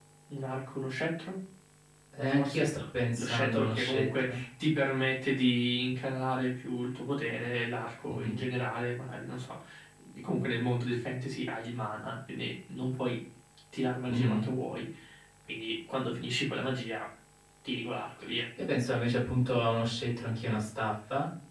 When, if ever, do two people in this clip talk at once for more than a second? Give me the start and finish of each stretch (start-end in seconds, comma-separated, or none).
3.2-4.4